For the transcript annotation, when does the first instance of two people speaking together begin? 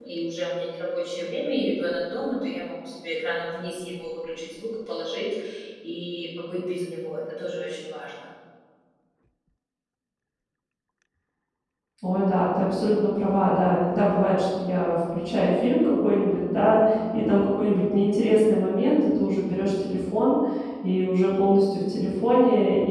none

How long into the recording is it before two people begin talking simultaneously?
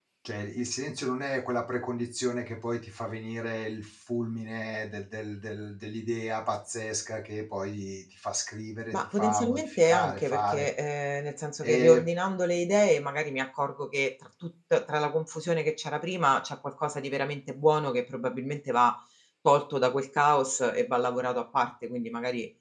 8.9 s

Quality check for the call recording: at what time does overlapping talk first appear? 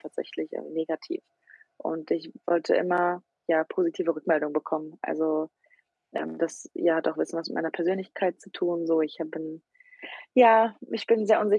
none

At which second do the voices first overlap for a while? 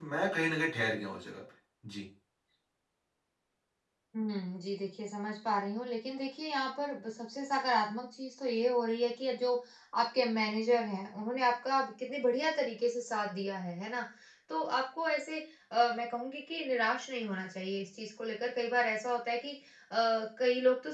none

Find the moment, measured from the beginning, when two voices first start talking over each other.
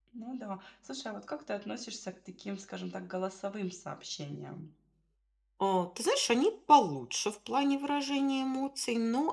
none

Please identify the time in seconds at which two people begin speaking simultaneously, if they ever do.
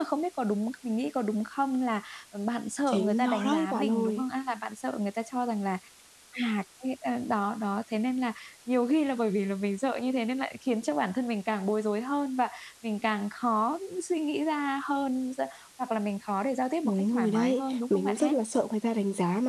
2.9 s

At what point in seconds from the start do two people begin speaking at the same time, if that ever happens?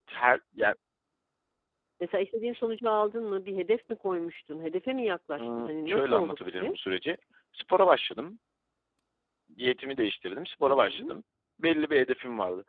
5.4 s

